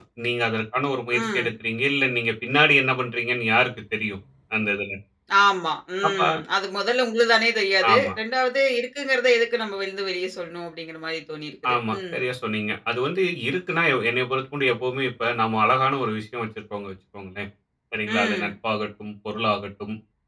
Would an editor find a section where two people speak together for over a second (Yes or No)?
No